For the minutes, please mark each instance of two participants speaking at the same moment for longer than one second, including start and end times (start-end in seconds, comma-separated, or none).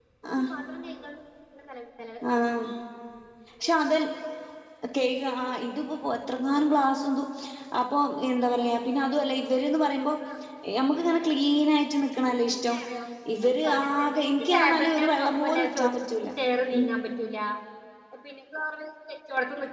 13.7-16.3